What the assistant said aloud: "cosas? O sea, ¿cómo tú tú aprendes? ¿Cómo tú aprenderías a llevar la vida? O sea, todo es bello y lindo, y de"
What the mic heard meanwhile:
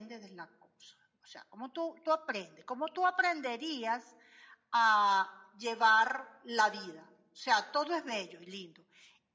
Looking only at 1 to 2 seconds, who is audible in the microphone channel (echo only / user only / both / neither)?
echo only